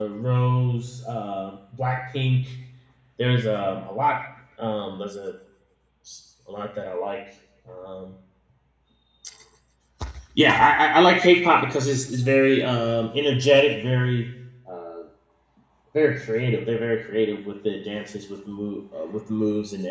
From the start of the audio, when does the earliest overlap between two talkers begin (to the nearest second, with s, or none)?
none